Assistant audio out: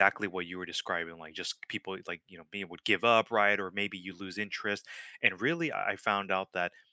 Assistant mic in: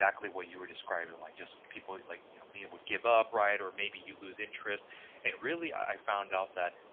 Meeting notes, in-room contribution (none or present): none